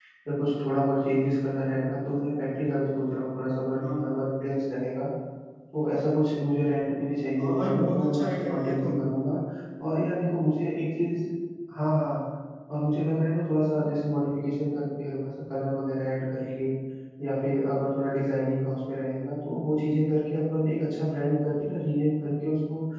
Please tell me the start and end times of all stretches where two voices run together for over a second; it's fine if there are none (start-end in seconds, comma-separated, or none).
7.4-8.9